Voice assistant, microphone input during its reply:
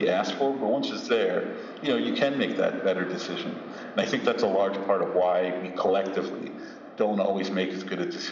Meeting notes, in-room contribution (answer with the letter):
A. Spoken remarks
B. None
B